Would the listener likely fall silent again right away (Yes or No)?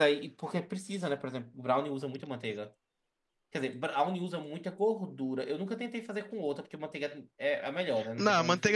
No